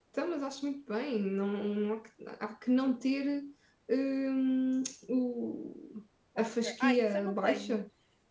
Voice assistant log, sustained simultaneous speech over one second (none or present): present